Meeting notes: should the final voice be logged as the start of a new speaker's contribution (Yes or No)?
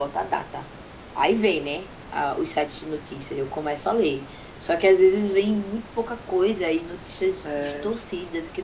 No